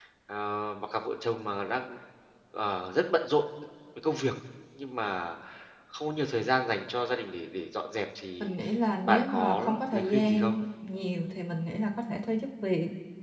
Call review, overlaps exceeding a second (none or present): present